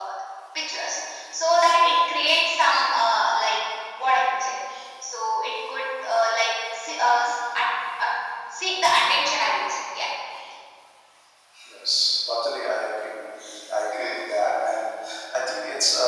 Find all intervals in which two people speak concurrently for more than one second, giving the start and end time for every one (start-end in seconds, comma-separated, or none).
none